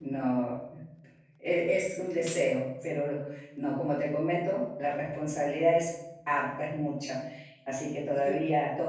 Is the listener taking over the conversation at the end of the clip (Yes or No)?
No